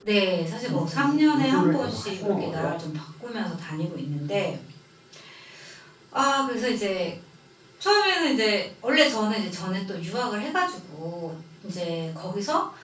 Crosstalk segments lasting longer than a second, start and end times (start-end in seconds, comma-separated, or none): 0.7-2.7